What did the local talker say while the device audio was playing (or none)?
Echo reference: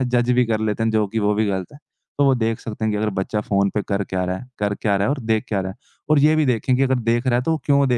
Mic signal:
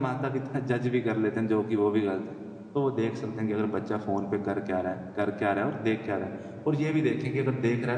none